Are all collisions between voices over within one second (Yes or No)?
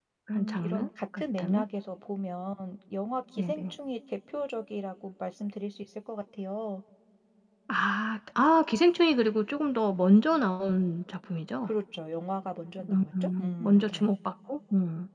No